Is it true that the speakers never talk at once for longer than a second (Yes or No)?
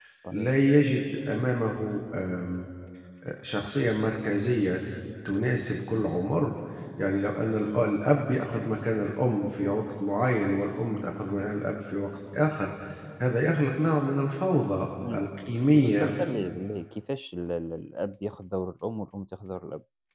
Yes